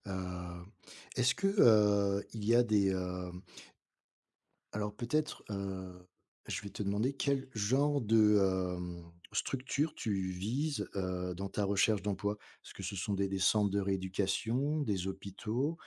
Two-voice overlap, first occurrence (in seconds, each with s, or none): none